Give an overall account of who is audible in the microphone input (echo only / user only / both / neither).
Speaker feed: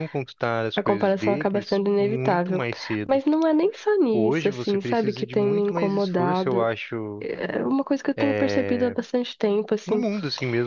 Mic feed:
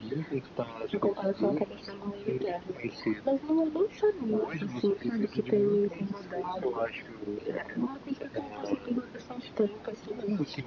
echo only